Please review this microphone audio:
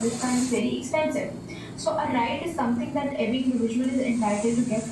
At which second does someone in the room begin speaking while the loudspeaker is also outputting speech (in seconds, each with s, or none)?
none